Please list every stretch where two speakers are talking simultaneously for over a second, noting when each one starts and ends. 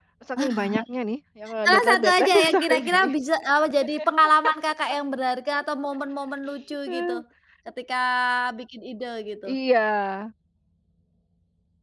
1.6-3.1

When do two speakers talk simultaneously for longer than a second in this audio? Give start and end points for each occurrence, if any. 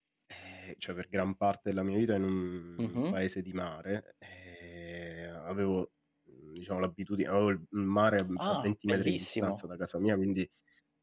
8.4-9.6

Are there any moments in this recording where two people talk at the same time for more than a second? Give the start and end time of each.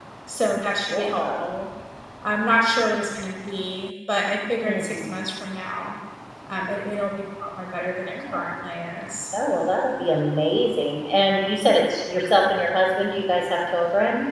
none

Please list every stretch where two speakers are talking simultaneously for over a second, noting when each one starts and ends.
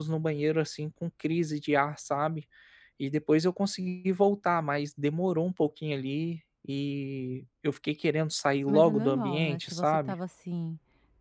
8.7-10.1

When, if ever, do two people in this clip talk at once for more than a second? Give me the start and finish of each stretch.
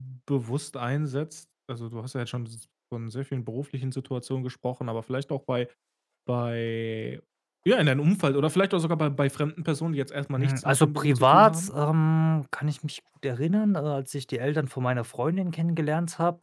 10.4-11.7

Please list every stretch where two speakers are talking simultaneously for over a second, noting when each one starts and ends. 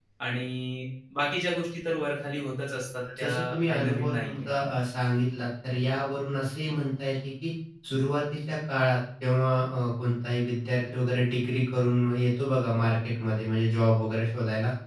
3.2-4.5

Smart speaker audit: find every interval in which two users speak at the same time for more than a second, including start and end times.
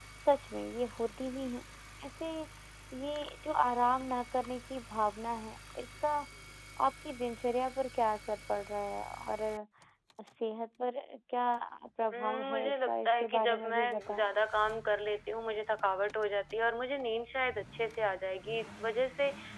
12.1-14.2

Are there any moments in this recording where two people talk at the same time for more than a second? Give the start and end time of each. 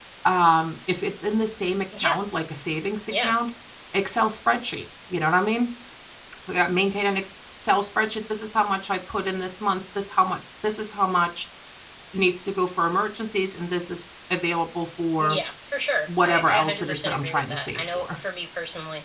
16.2-18.1

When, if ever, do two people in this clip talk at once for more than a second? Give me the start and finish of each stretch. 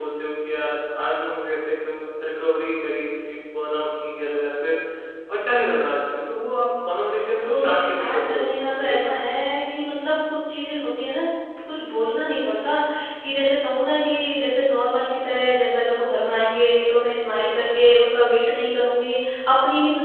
7.4-9.2

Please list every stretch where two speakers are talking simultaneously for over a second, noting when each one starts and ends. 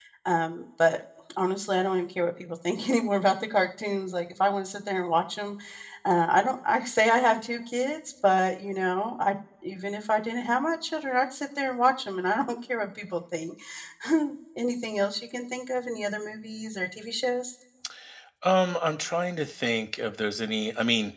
none

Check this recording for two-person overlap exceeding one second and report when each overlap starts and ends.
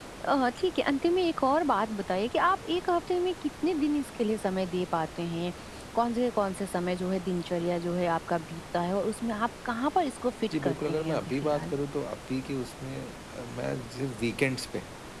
10.5-11.7

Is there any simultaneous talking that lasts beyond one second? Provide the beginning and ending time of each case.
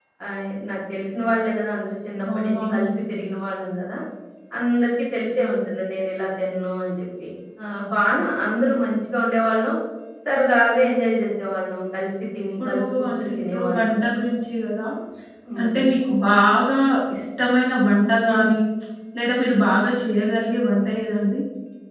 12.6-13.9

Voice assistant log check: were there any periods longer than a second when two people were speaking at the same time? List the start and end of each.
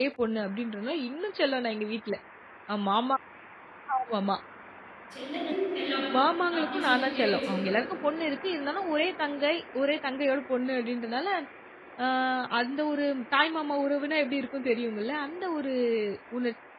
6.6-7.8

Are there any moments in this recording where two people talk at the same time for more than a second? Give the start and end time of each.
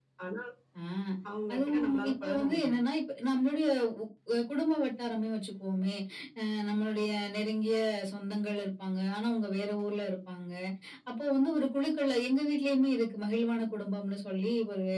1.5-2.8

